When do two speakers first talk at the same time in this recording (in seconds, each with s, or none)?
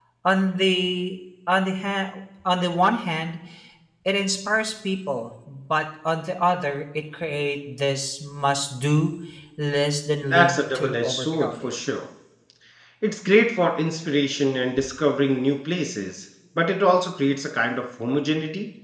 10.3 s